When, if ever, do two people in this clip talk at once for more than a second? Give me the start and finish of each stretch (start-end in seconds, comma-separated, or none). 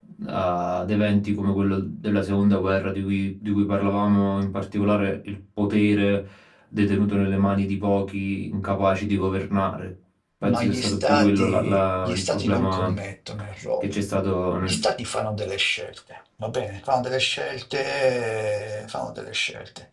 10.4-12.9